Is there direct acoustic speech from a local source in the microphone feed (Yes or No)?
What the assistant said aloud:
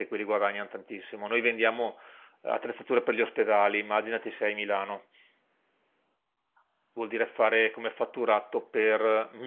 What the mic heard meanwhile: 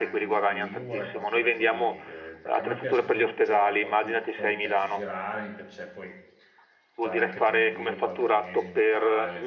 Yes